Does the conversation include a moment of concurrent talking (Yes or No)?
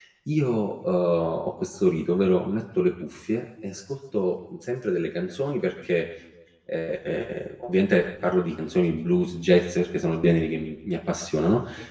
No